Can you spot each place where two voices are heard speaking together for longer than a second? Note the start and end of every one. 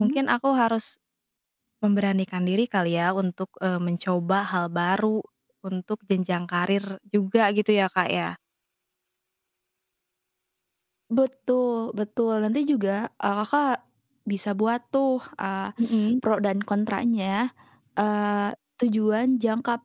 none

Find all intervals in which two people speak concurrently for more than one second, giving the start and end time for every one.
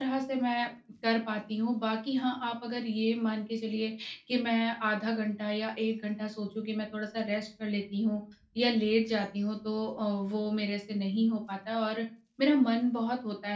none

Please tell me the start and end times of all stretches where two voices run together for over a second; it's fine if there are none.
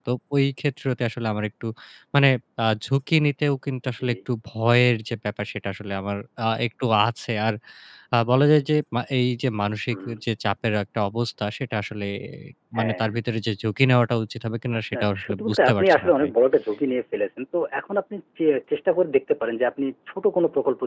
14.9-16.3

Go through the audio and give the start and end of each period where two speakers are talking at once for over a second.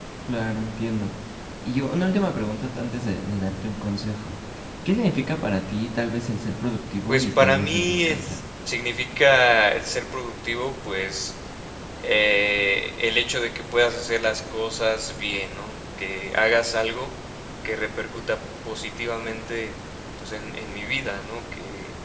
7.1-8.4

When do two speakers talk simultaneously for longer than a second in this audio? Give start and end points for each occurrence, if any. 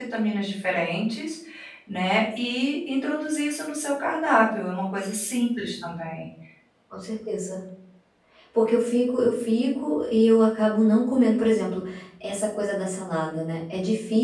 none

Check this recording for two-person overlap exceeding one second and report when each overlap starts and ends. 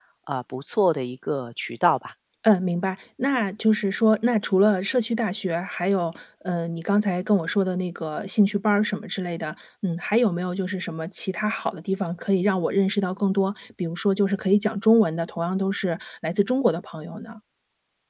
none

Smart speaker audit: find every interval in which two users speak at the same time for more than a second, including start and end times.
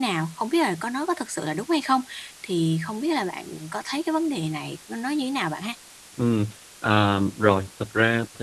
none

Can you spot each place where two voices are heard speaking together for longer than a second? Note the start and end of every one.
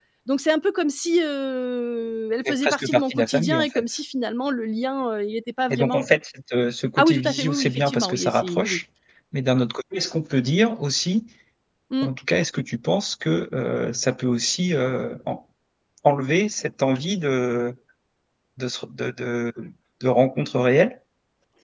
2.4-4.0, 7.0-8.8

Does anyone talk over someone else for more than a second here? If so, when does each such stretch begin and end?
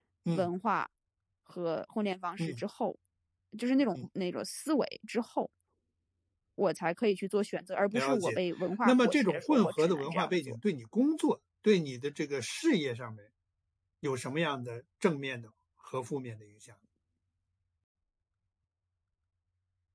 8.8-10.6

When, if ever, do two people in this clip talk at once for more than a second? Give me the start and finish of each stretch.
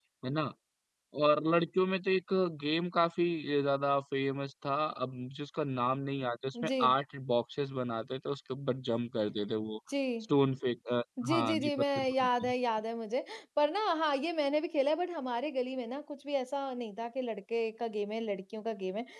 11.2-12.5

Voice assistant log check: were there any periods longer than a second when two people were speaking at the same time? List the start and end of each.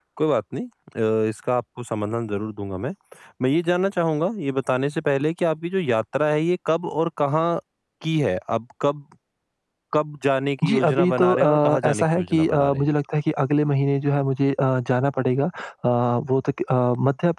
10.7-12.9

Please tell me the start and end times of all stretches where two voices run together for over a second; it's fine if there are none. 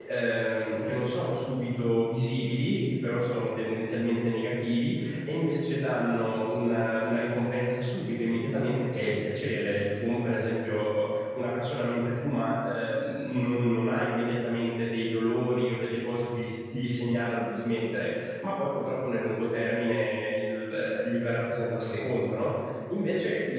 none

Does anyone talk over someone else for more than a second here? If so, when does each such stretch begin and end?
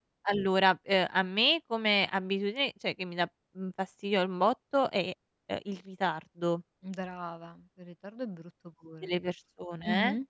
none

